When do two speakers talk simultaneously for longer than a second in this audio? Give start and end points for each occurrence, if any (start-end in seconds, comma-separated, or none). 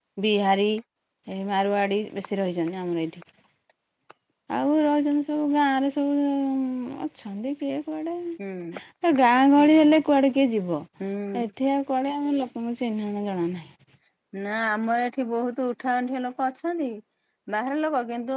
none